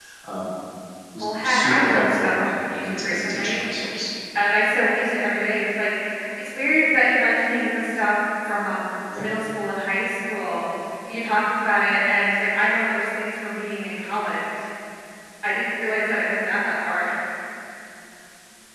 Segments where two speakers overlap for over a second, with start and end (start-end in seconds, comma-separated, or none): 1.2-3.6